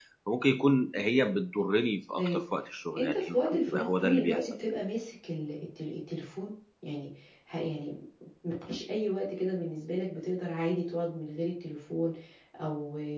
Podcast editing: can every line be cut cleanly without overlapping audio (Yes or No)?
No